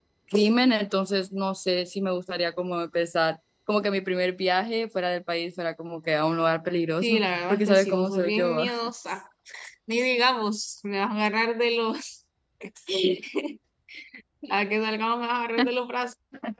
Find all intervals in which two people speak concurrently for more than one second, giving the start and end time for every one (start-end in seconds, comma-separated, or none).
7.0-8.7